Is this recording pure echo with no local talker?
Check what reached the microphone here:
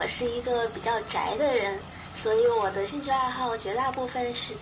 Yes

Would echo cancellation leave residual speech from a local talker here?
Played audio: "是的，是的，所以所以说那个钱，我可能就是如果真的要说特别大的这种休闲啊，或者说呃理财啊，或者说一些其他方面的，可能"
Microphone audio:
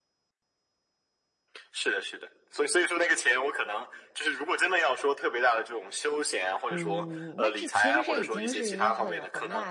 Yes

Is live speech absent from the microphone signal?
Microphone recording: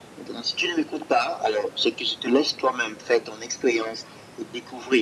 Yes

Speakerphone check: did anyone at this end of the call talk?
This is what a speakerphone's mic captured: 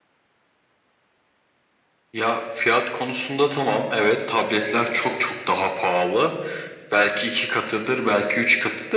No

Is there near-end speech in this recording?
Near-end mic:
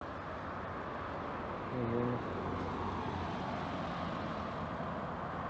No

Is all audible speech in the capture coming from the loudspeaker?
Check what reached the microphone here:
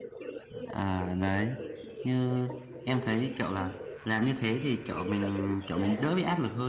No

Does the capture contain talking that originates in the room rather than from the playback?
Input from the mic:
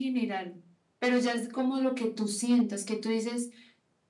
No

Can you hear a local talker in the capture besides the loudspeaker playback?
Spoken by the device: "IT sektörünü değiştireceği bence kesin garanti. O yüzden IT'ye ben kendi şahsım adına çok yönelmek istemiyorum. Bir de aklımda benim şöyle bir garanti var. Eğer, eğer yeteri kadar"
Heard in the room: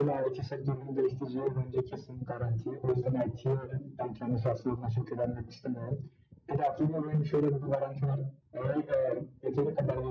No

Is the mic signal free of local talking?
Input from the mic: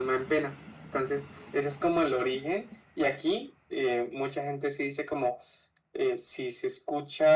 Yes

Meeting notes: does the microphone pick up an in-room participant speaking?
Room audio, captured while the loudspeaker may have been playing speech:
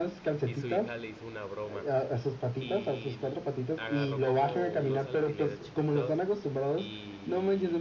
Yes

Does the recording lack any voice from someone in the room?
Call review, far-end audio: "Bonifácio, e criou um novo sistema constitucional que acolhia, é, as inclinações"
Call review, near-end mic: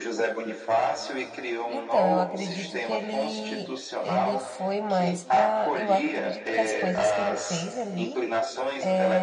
No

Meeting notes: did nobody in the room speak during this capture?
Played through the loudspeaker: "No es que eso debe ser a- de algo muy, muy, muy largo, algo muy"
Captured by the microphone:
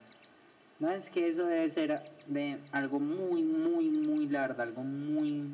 Yes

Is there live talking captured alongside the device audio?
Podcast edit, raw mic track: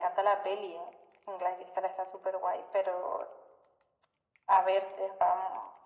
No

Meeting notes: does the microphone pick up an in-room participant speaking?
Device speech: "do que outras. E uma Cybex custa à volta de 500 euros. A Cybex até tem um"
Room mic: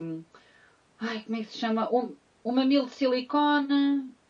Yes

